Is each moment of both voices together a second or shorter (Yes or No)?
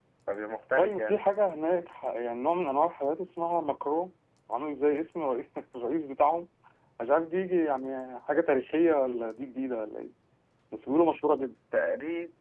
Yes